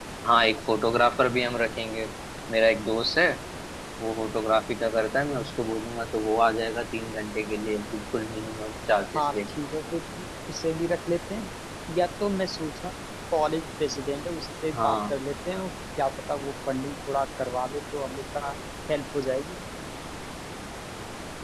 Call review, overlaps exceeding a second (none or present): none